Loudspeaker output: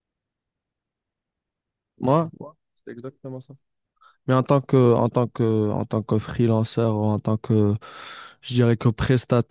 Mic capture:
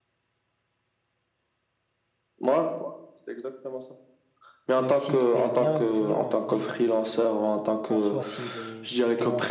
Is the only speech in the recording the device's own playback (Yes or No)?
No